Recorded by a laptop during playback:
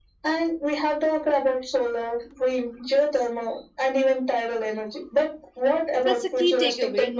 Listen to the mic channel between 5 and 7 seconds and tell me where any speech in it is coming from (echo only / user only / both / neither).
both